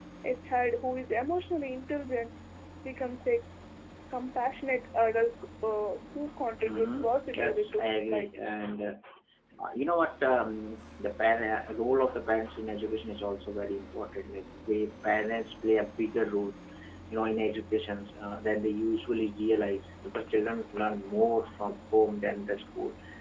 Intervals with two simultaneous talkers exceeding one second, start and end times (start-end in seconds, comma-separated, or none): 6.6-8.4